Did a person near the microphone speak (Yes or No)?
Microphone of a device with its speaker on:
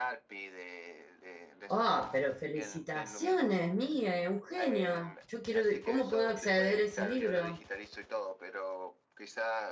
Yes